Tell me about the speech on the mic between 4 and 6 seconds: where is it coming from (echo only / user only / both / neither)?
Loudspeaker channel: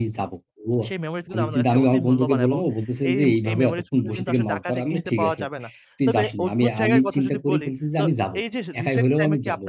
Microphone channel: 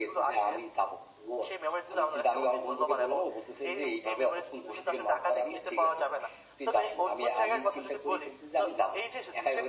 echo only